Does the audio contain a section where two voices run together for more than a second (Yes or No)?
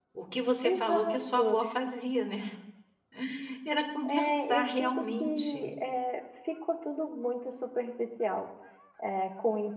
Yes